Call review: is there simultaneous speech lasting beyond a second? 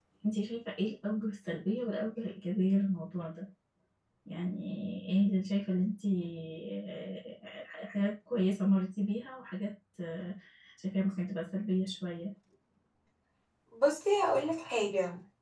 No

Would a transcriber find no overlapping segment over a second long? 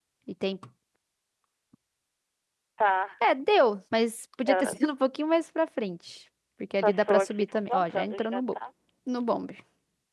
No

